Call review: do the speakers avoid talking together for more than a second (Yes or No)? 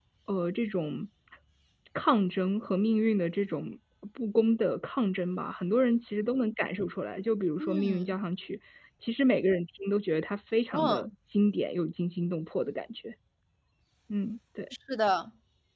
Yes